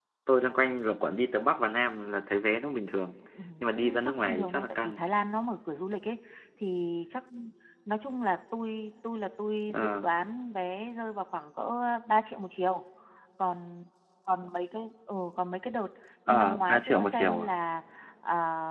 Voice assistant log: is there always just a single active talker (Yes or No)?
No